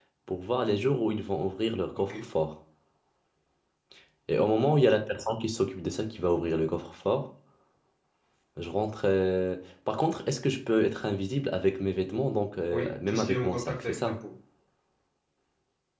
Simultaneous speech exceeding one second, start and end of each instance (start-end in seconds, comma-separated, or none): 12.7-14.2